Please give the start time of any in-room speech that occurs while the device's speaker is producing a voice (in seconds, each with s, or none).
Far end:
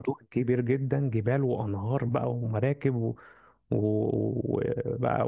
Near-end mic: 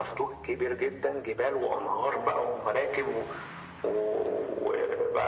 none